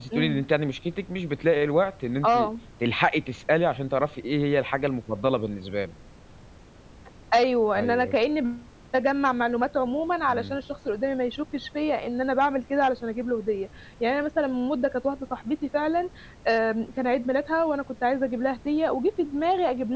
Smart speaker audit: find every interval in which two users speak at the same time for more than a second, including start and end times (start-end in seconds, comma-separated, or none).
none